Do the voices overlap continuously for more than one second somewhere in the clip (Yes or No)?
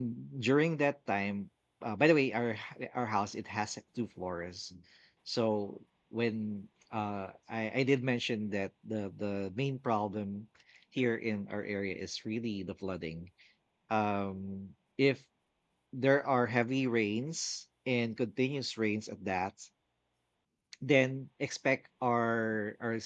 No